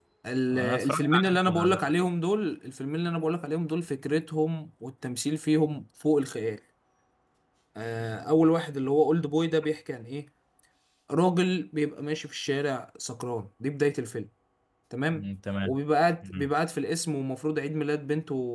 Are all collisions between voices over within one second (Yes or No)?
No